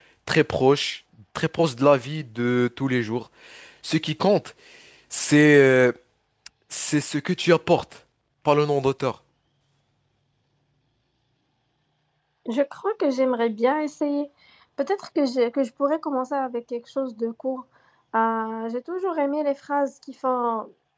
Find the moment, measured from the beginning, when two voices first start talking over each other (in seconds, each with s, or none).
none